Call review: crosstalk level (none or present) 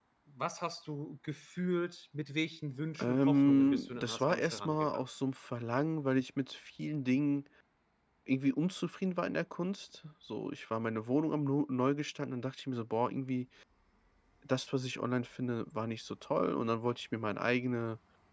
present